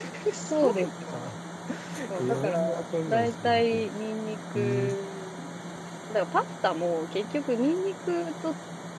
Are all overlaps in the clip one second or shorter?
No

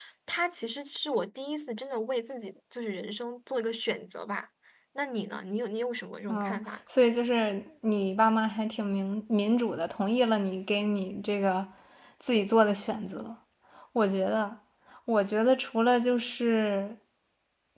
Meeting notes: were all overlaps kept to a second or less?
Yes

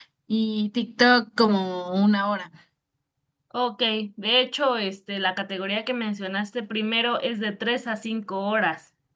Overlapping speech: No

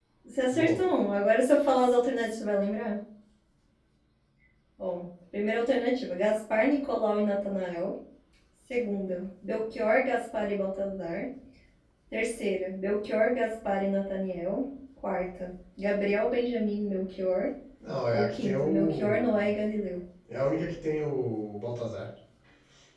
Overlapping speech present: Yes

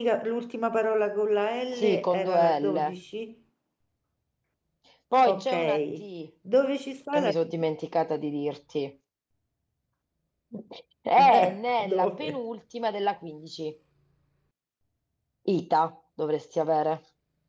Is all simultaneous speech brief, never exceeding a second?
No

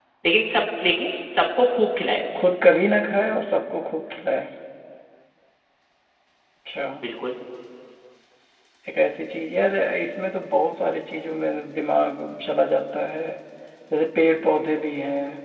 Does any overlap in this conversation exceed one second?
No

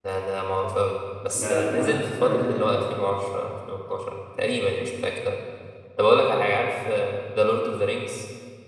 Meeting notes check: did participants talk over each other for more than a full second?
Yes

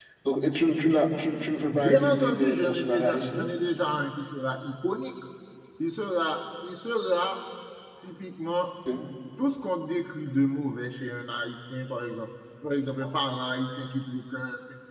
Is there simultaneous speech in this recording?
Yes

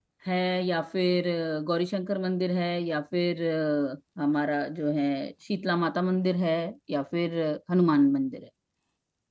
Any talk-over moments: No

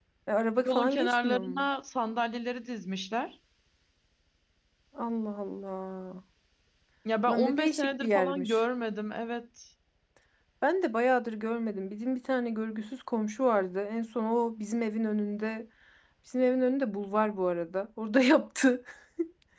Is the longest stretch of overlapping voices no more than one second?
No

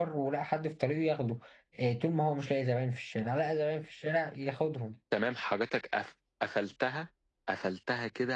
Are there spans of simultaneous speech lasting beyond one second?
No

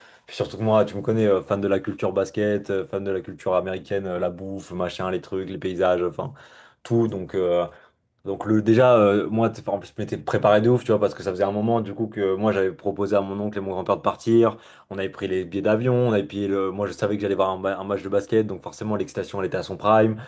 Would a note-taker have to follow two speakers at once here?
No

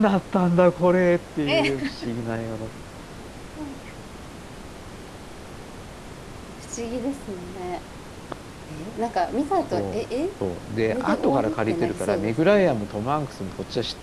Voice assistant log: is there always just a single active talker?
No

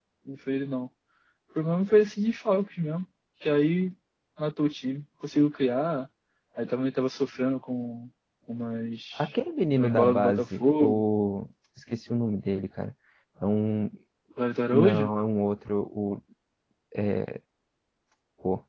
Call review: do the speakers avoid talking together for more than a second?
No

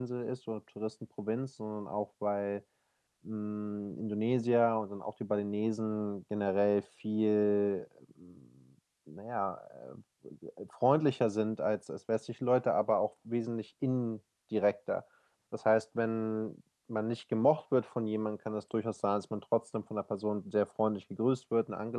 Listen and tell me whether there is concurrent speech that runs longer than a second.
No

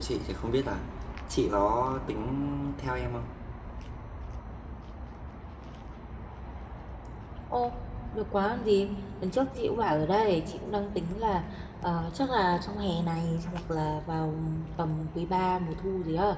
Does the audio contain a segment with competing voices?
No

